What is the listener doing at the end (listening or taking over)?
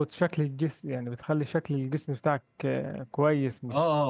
listening